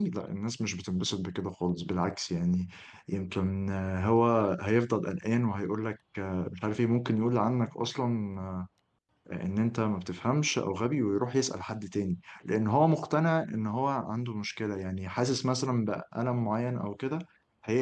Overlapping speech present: No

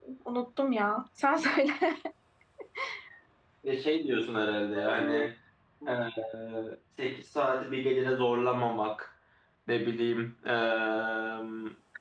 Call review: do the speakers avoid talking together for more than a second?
Yes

